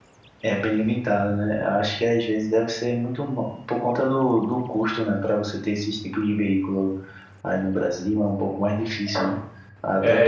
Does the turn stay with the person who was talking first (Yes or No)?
Yes